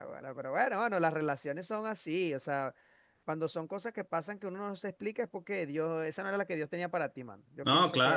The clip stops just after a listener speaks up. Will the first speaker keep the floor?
No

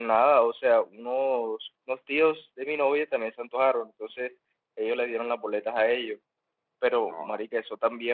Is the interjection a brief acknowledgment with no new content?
Yes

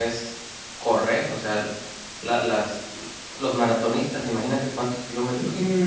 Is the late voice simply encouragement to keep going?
No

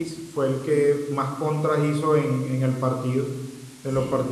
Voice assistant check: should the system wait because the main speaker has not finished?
Yes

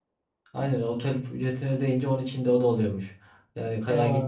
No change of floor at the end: Yes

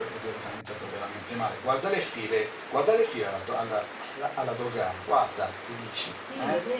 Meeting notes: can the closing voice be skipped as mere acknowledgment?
No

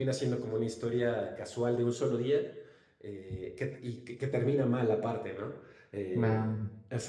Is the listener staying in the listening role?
Yes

